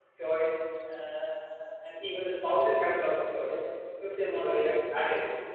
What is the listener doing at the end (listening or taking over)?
listening